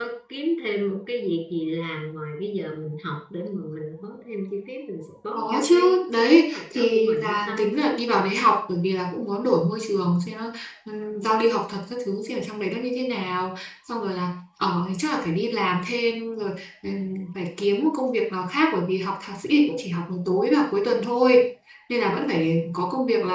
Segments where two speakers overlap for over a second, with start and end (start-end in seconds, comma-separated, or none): 5.3-7.8